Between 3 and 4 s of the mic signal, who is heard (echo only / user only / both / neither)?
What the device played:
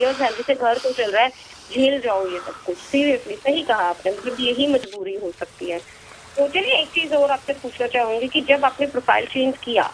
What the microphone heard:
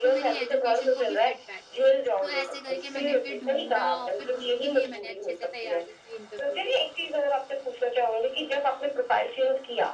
both